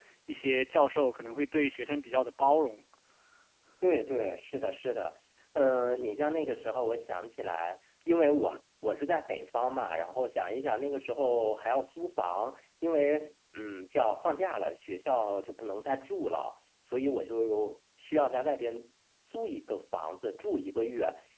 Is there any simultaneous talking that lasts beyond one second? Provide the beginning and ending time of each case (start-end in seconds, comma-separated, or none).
none